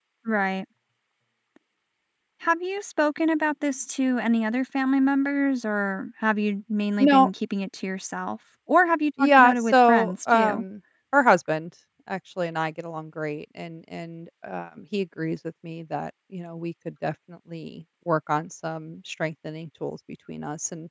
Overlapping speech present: Yes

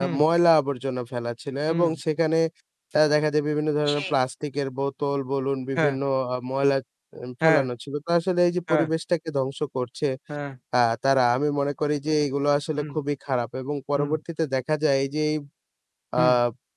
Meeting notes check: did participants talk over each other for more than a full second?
No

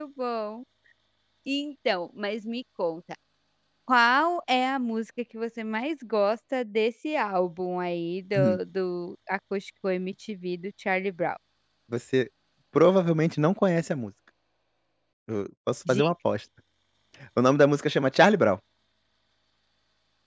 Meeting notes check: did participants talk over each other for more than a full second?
No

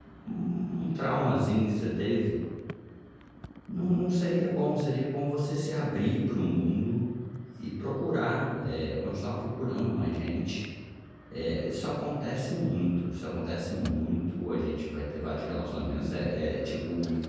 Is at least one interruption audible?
No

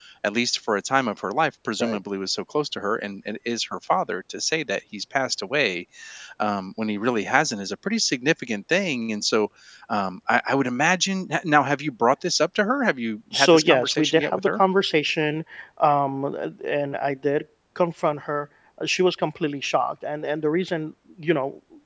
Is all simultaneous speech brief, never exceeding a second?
No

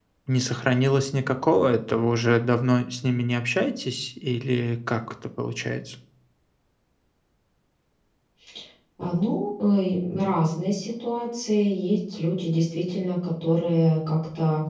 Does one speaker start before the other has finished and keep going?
No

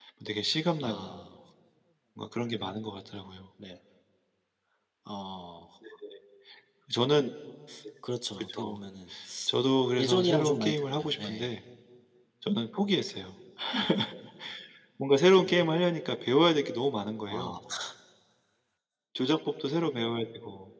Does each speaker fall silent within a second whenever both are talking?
No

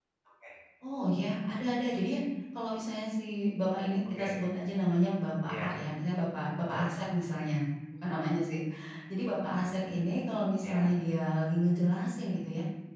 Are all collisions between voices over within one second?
Yes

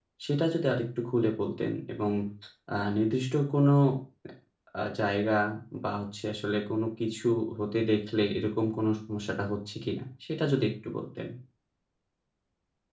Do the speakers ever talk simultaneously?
No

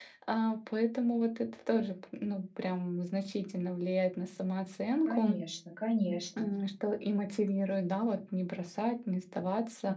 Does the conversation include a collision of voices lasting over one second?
No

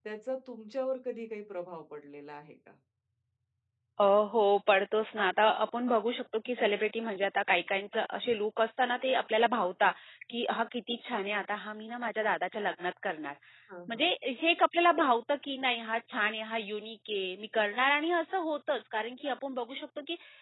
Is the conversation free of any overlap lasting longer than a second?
Yes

